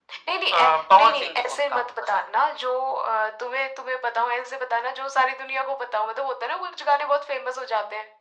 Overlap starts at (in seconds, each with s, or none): 0.5 s